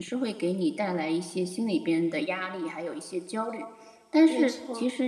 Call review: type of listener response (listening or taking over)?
listening